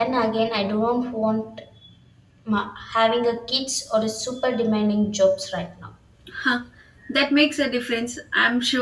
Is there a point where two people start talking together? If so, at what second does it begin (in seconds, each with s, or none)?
none